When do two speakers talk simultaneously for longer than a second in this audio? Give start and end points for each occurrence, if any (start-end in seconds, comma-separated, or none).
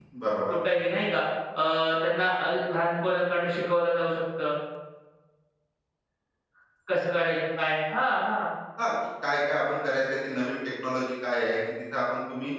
none